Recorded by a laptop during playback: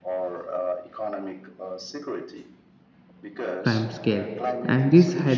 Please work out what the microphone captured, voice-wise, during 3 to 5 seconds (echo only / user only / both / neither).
both